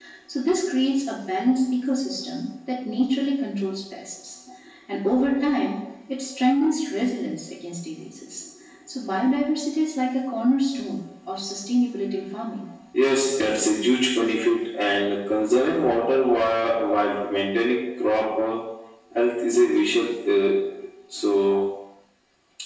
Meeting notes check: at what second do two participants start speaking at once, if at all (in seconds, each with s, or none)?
none